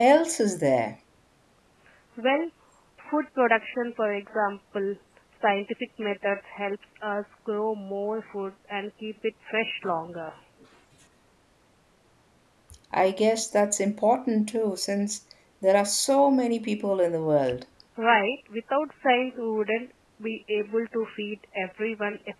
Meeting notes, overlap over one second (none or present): none